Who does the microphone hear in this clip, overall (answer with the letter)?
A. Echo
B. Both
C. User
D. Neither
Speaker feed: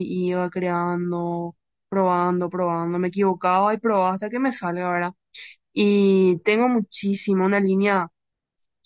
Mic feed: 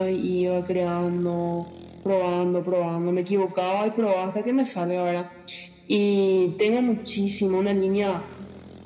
A